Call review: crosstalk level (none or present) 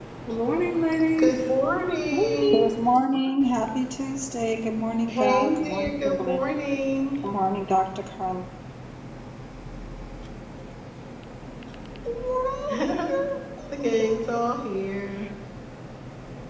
present